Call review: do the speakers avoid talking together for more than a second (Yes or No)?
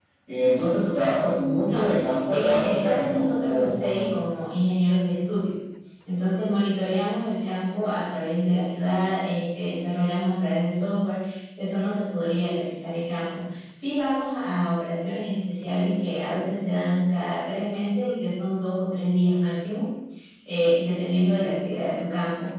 No